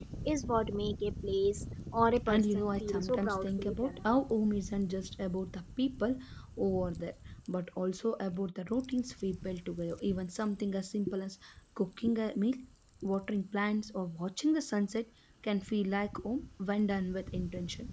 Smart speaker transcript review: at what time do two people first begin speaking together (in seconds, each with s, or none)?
2.3 s